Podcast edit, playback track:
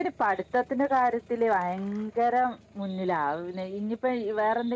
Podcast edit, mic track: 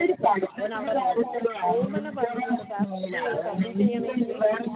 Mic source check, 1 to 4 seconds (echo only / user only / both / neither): both